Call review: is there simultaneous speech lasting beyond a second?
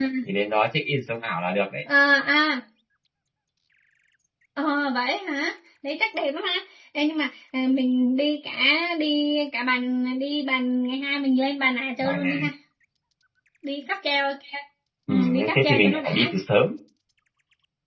Yes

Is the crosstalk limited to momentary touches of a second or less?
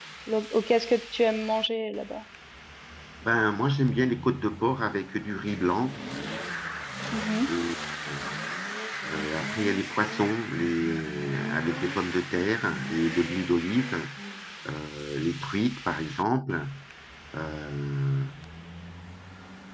Yes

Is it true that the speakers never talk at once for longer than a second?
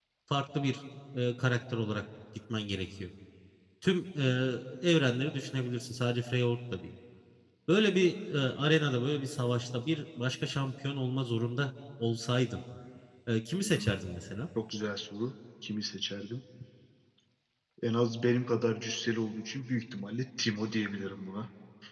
Yes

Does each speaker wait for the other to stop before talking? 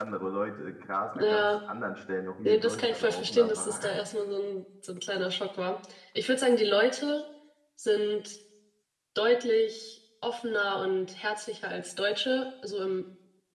No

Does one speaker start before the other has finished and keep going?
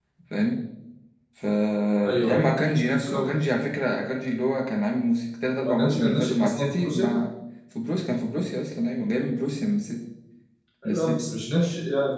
Yes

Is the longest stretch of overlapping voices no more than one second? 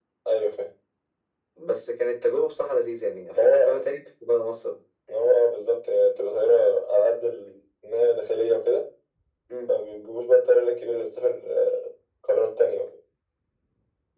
Yes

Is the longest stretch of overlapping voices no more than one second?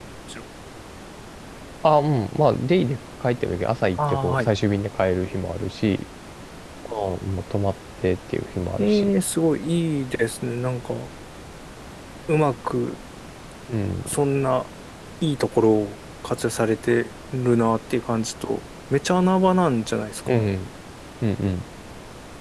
Yes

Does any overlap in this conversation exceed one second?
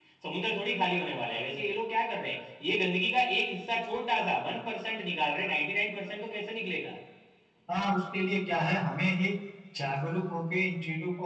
No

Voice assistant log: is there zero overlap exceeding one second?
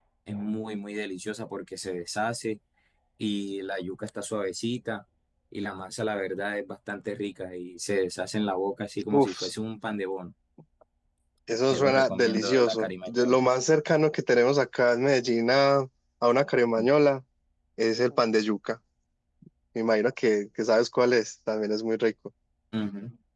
No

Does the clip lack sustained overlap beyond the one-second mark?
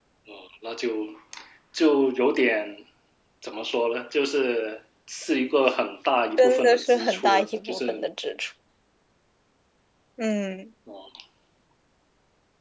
No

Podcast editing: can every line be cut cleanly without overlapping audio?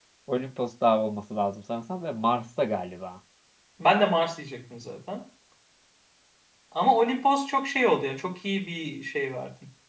Yes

